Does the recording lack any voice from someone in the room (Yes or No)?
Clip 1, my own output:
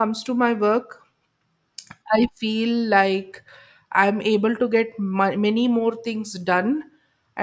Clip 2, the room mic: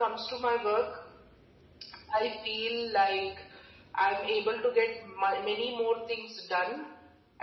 Yes